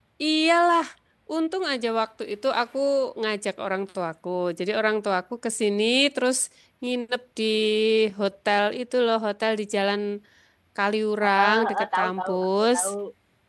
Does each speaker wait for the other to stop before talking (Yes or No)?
No